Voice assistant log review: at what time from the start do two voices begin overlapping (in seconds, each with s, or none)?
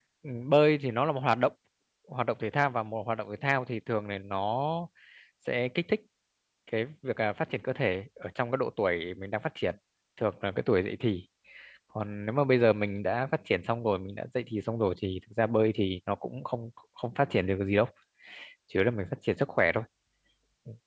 none